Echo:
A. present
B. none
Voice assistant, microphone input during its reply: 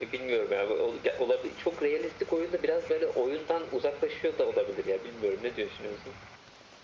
A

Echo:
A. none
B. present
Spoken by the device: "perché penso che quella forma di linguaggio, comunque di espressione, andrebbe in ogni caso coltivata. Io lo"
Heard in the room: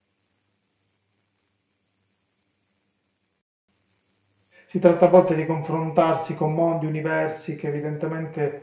A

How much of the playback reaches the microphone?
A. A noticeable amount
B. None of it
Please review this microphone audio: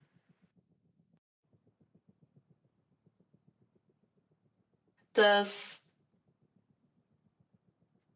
B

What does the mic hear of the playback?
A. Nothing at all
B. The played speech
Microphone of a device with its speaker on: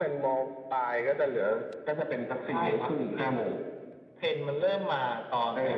B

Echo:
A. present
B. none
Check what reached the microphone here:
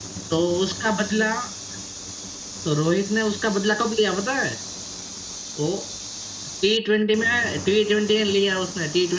B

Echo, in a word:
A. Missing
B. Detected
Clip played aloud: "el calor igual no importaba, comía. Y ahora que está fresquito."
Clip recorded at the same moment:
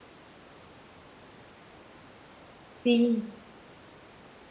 A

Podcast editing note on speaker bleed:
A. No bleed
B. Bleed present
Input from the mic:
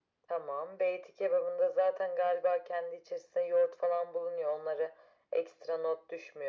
B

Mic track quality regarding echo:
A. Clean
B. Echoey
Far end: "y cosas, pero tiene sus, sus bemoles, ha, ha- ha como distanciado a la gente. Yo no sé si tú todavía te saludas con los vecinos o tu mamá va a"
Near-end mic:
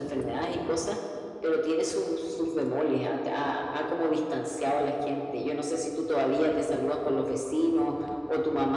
B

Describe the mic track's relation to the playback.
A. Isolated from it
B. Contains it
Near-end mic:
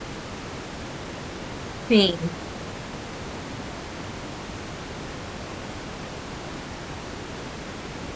A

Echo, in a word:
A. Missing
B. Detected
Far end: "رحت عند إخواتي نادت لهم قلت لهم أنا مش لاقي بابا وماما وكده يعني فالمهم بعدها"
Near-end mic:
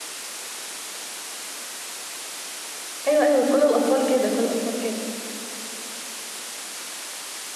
A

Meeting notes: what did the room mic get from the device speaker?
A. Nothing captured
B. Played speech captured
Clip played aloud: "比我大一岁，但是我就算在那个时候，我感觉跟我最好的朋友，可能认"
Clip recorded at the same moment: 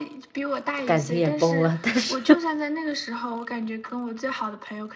B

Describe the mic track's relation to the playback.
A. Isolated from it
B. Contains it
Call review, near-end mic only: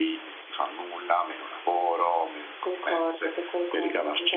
B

